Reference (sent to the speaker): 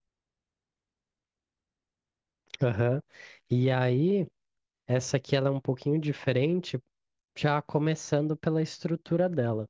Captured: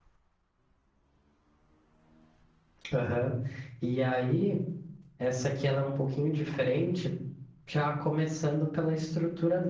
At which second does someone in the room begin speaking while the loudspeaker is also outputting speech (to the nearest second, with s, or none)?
none